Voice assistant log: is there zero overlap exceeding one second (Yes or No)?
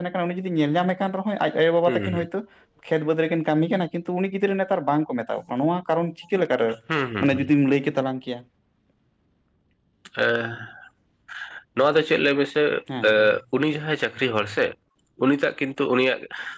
Yes